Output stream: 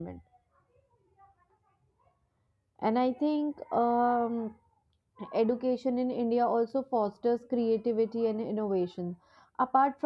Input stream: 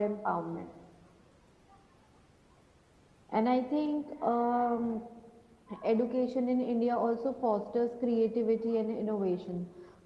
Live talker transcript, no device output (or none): none